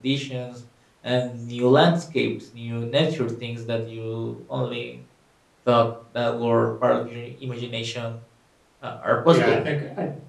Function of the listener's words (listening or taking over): taking over